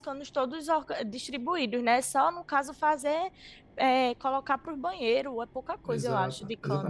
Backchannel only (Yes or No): No